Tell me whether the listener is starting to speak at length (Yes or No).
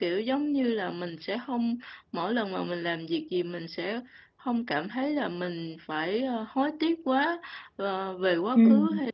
No